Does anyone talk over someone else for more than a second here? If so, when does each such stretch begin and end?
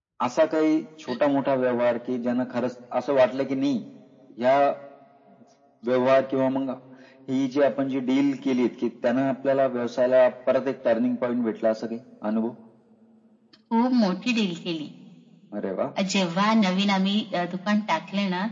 none

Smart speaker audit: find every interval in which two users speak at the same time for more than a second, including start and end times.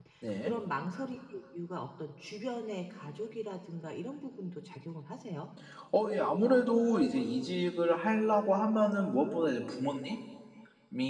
none

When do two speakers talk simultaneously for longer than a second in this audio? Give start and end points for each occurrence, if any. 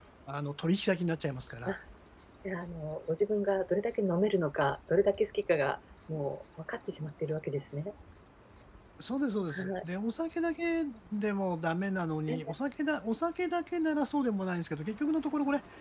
none

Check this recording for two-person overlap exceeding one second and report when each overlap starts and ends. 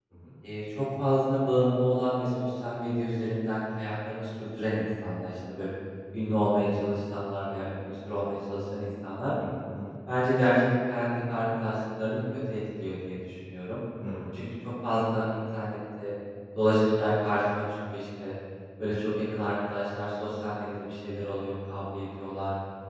none

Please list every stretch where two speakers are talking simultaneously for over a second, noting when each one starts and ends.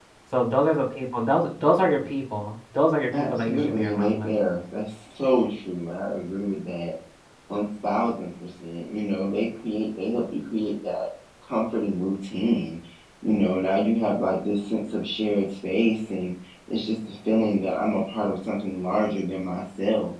3.1-4.3

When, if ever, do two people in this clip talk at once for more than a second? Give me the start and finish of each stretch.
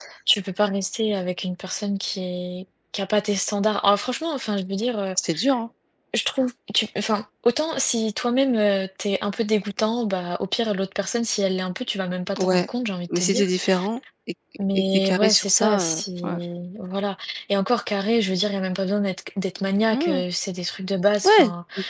14.7-16.4

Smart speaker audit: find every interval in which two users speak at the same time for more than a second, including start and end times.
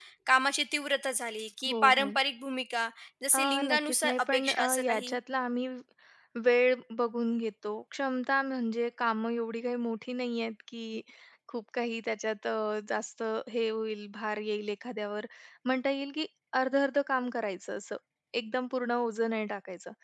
3.4-5.2

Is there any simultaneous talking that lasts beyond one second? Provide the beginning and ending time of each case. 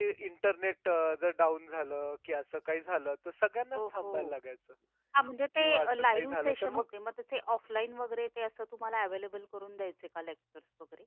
5.6-6.8

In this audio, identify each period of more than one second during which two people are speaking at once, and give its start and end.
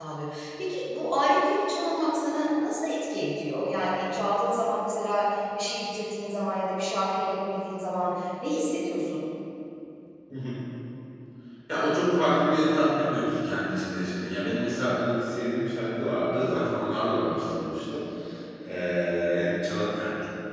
none

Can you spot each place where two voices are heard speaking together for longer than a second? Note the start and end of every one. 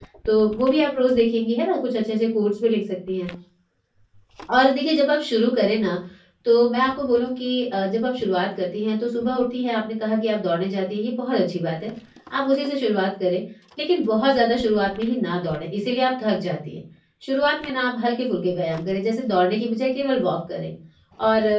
none

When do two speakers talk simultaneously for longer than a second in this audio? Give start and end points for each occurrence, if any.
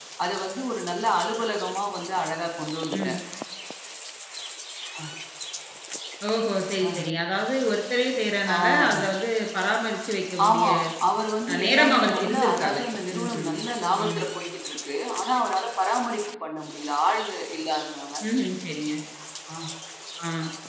11.5-12.8

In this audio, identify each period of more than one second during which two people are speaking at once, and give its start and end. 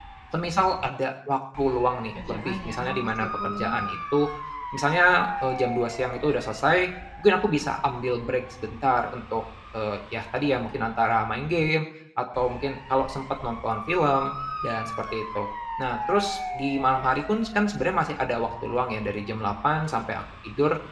2.3-4.0

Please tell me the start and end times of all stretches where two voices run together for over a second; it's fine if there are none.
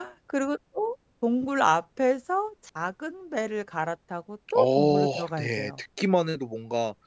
4.6-5.8

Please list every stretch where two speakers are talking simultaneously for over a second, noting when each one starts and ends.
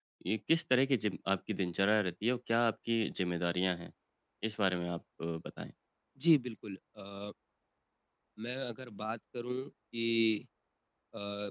none

